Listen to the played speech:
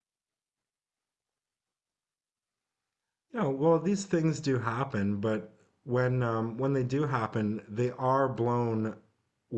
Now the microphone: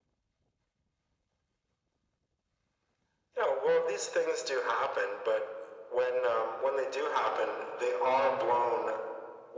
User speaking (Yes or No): No